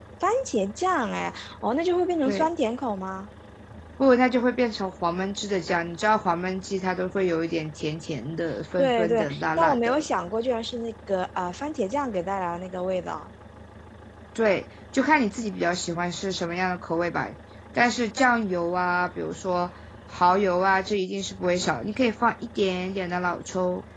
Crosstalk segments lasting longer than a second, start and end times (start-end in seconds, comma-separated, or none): 8.8-10.1